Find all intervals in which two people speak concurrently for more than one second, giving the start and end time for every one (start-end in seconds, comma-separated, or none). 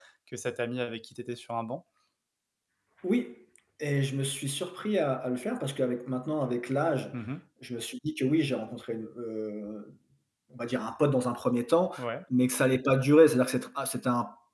none